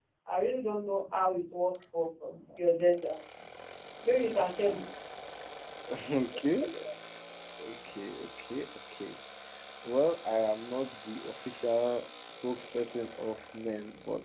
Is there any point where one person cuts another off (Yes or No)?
No